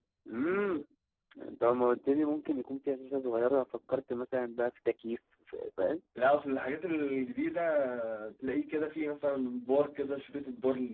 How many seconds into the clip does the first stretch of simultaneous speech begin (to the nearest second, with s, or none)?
none